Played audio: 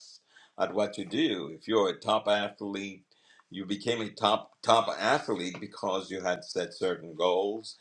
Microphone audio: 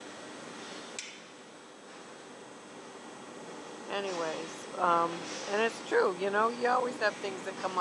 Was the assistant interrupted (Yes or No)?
Yes